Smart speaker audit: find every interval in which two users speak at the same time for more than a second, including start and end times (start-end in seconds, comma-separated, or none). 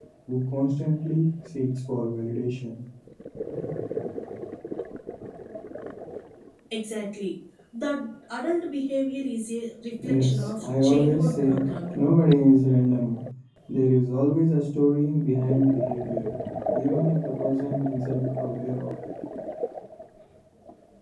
10.0-12.0